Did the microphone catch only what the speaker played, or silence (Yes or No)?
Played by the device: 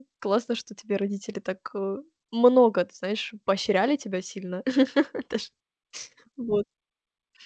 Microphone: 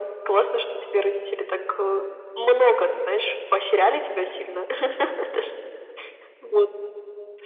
Yes